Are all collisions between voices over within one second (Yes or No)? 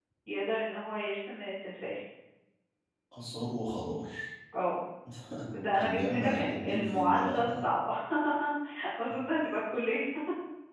No